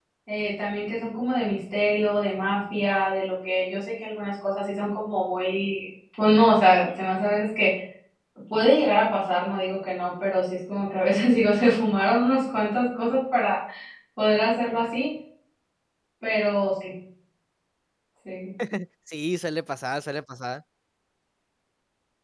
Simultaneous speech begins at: none

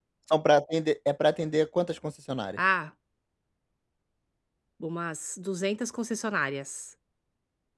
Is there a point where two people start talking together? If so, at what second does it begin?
none

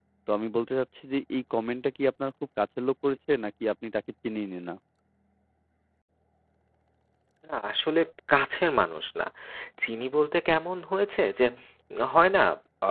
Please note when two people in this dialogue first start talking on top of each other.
none

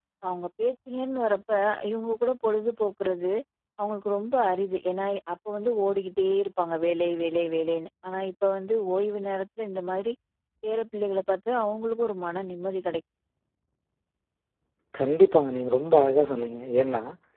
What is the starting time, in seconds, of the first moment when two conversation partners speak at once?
none

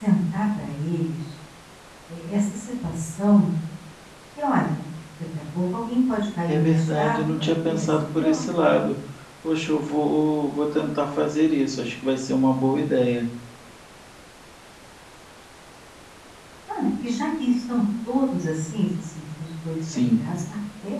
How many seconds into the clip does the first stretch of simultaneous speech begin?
6.4 s

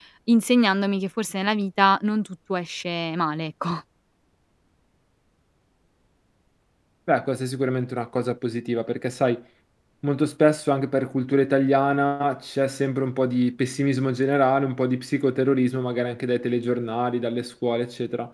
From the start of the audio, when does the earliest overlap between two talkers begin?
none

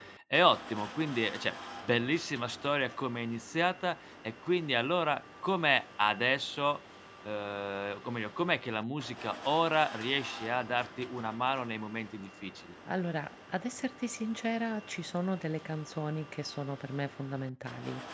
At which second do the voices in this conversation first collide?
none

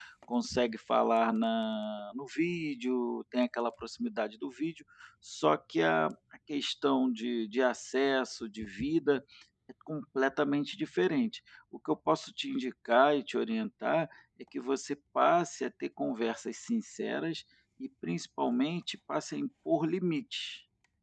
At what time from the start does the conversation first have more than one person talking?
none

